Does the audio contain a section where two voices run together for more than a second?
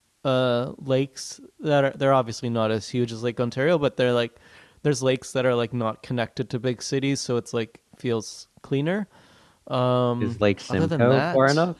Yes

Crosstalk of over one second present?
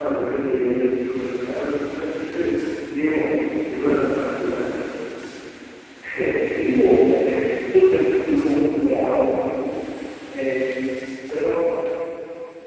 No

